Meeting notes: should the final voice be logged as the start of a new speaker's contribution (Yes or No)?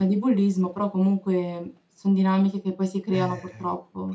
Yes